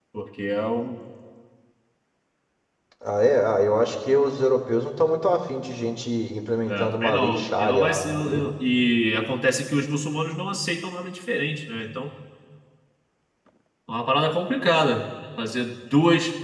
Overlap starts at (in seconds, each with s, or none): 6.7 s